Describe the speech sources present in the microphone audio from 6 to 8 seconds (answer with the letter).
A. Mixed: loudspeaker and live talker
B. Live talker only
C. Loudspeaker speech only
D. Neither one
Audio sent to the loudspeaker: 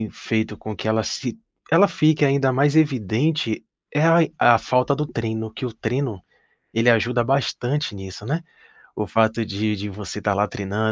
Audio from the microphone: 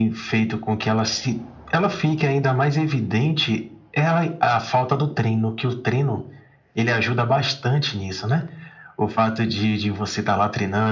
C